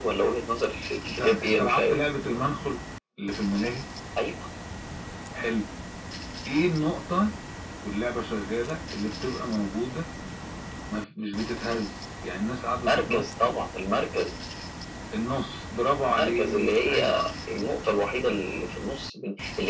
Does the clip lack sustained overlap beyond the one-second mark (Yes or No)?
No